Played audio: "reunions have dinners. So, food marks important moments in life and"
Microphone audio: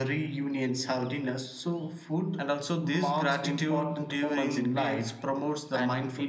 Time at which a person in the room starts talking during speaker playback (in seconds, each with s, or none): 2.4 s